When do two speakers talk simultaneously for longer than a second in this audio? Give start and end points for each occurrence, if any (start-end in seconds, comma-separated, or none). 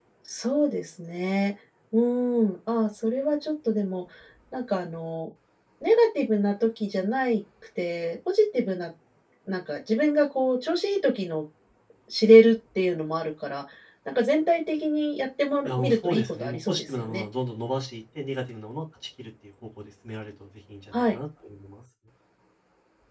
15.6-17.2